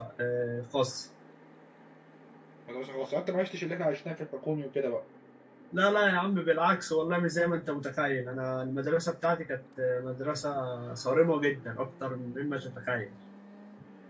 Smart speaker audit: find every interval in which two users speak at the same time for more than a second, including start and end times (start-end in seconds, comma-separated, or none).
none